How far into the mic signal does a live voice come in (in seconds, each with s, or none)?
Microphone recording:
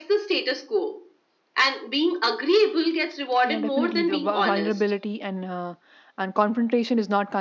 3.4 s